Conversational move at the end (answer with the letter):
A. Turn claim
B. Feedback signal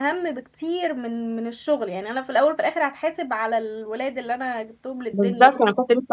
A